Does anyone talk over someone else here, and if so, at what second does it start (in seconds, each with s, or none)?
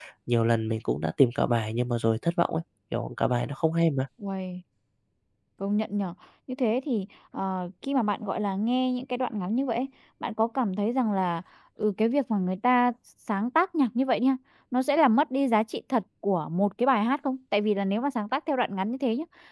none